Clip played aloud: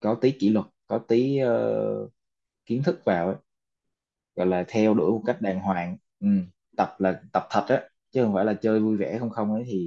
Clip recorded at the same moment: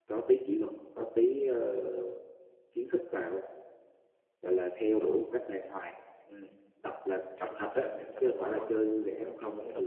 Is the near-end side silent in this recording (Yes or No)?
No